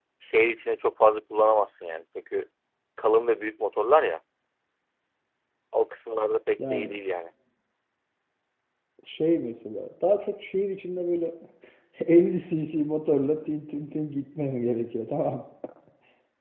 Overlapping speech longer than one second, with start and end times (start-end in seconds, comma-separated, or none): none